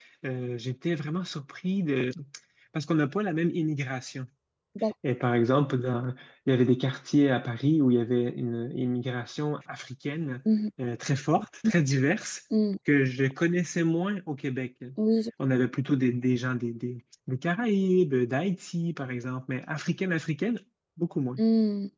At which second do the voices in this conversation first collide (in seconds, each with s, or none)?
none